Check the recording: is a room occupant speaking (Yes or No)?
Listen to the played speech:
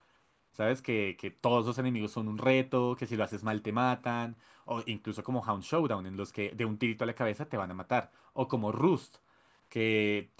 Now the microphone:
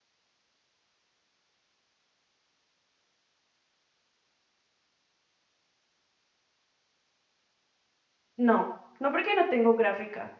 Yes